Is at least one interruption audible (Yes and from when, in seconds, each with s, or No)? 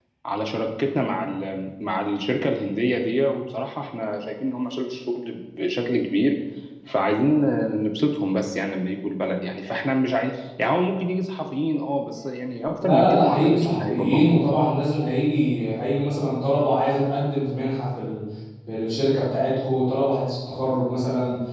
Yes, from 12.8 s